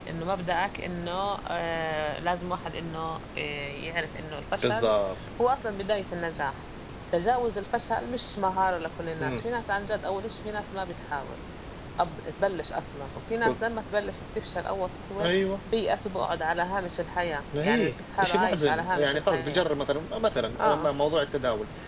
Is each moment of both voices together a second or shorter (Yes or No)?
No